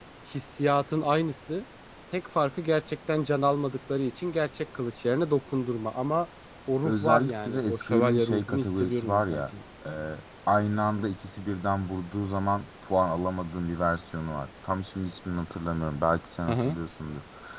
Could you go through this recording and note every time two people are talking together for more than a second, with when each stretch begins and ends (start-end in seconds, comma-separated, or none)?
6.8-9.4